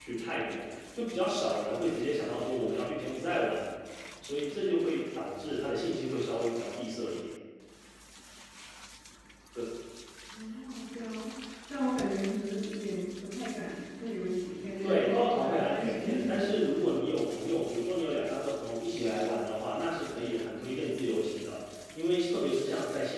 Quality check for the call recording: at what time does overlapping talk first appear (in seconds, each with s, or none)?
14.8 s